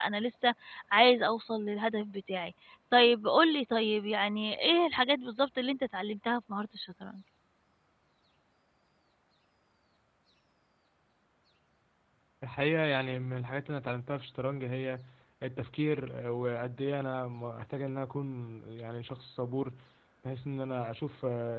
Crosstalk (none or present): none